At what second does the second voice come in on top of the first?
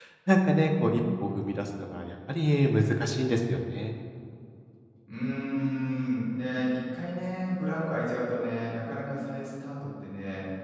none

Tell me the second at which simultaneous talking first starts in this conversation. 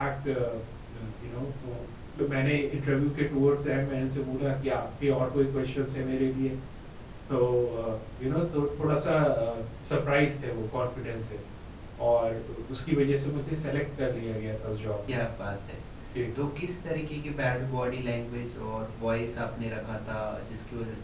none

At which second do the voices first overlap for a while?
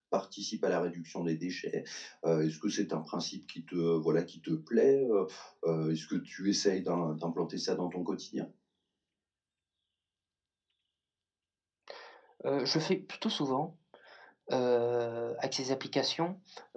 none

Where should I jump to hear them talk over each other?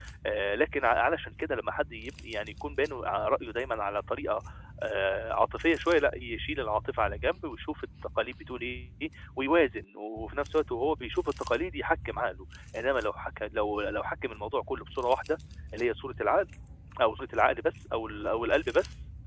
none

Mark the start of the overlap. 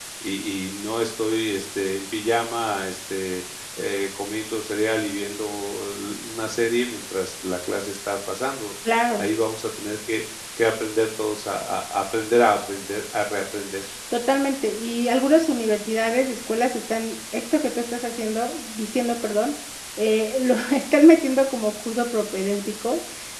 none

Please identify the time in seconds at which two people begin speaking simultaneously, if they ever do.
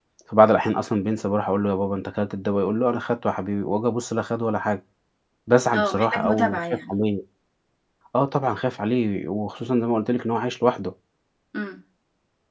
6 s

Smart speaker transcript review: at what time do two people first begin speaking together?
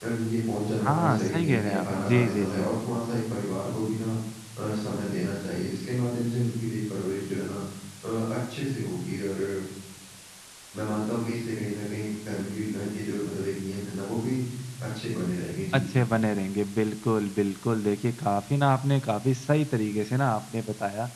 1 s

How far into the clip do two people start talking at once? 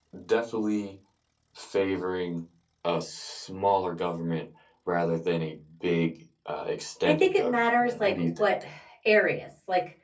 7 s

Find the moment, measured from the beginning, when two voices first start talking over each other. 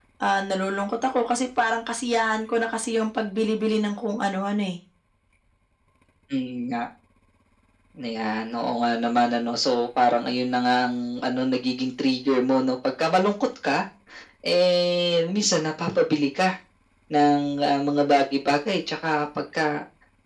none

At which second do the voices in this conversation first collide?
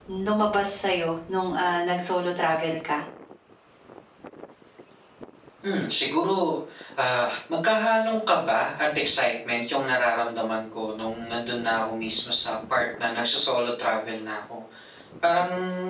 none

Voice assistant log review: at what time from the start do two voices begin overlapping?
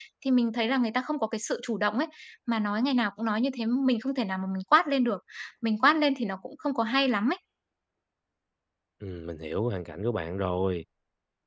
none

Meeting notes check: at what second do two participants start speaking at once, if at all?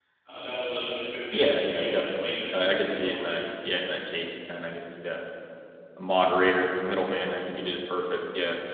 1 s

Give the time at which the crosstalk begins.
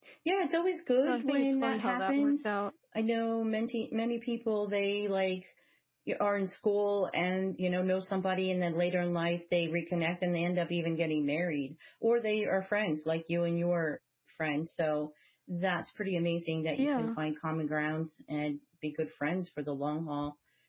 1 s

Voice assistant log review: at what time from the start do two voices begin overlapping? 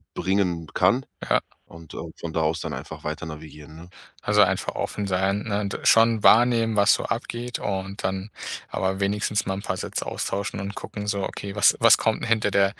none

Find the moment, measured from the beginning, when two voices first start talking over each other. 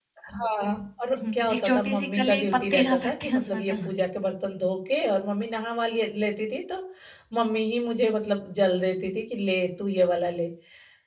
1 s

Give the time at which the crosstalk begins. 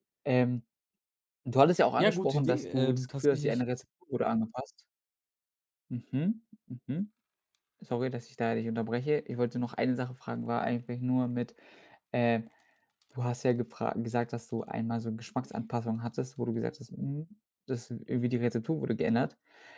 2 s

